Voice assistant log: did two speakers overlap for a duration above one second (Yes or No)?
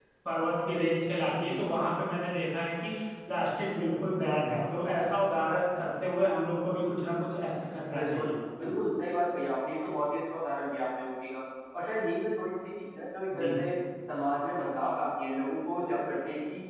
No